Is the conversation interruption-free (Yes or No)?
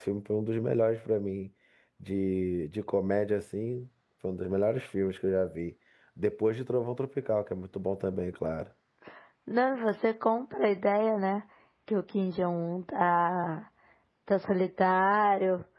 Yes